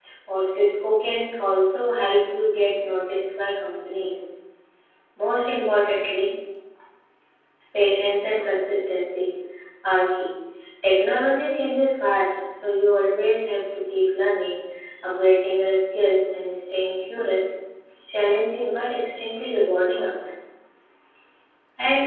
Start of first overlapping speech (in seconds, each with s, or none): none